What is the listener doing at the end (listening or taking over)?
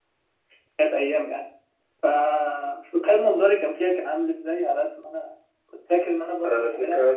taking over